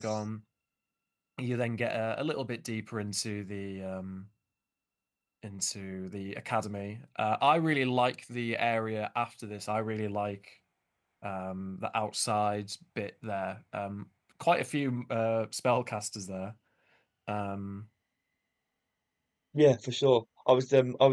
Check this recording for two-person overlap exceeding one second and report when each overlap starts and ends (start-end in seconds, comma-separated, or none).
none